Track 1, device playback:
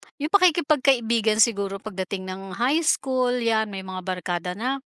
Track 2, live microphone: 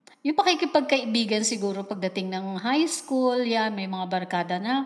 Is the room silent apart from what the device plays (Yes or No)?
Yes